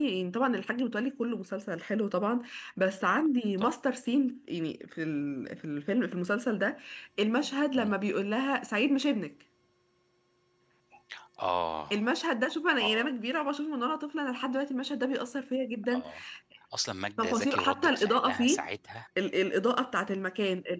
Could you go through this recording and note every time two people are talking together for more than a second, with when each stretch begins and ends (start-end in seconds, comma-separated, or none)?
17.2-18.7